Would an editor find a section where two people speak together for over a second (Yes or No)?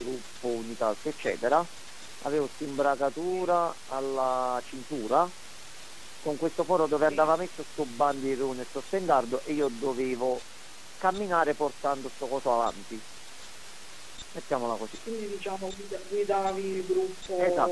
No